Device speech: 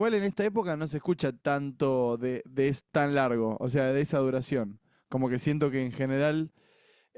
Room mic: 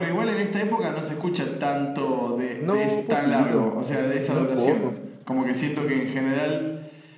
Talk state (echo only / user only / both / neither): both